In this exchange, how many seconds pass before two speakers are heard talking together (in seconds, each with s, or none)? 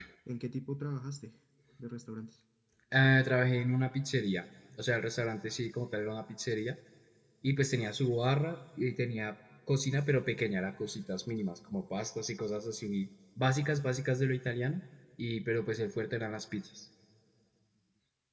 none